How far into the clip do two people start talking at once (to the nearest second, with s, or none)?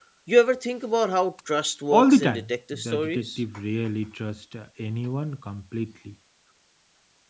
2 s